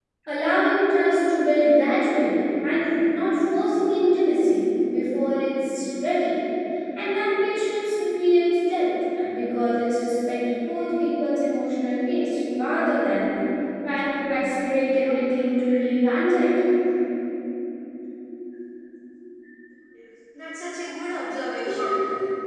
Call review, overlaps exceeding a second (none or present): none